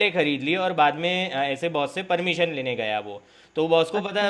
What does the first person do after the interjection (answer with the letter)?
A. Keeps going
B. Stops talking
A